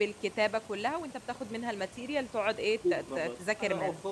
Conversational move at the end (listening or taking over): taking over